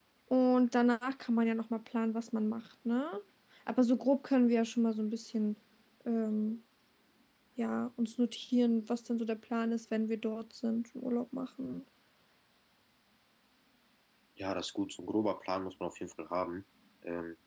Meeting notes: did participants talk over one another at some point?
No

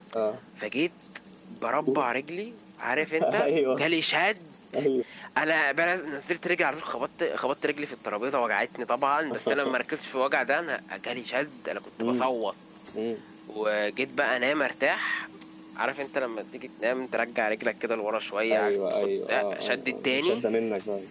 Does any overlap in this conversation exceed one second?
Yes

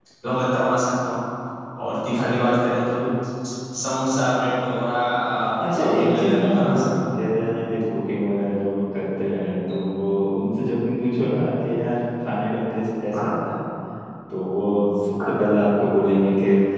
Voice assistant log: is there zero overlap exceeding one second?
No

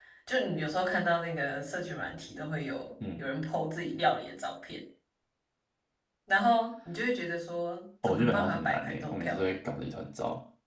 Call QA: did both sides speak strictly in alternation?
No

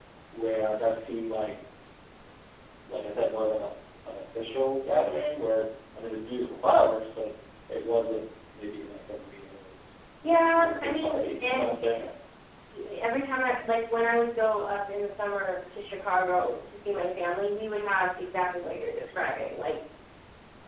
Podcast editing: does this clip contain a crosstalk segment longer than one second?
Yes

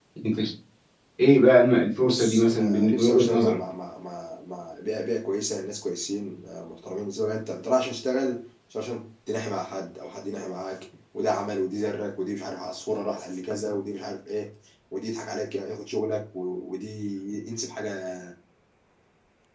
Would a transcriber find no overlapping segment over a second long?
No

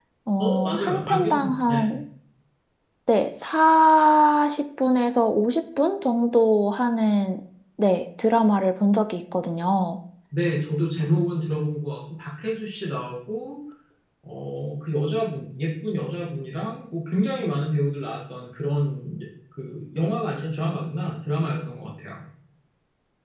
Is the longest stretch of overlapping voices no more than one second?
No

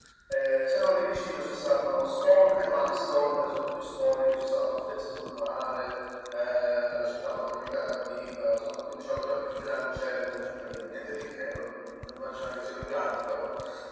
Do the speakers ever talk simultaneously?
No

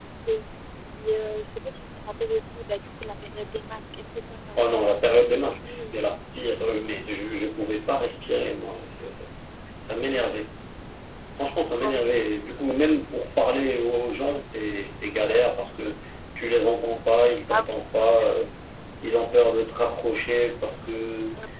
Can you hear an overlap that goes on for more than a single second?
Yes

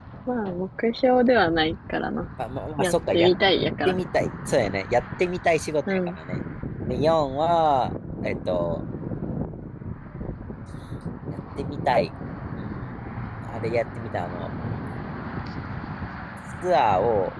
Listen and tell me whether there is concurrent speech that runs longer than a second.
No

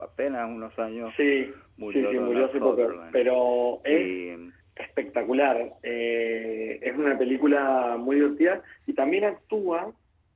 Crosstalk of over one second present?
Yes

